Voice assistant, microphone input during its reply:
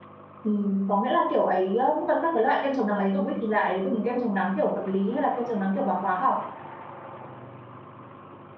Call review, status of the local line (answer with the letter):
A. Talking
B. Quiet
A